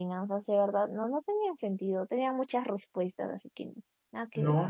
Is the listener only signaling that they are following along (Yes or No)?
No